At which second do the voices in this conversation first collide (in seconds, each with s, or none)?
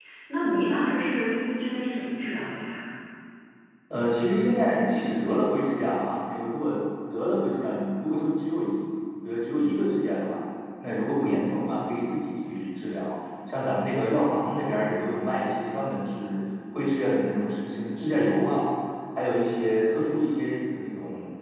none